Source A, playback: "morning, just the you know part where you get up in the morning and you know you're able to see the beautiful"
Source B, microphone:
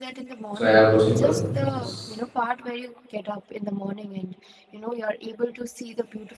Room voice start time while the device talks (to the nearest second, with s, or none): 1 s